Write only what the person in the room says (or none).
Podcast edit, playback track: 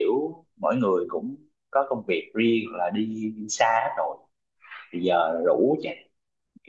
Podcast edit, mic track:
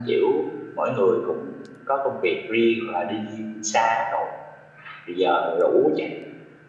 none